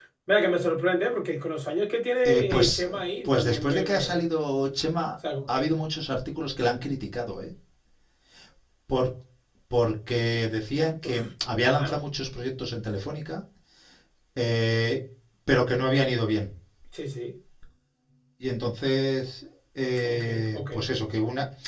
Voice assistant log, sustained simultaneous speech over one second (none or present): present